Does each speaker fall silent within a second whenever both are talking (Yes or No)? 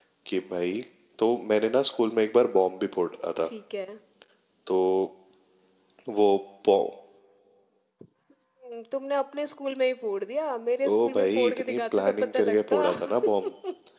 No